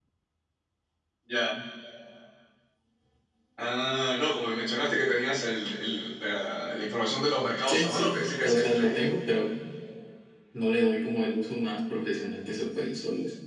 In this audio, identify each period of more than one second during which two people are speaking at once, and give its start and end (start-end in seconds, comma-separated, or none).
7.7-9.1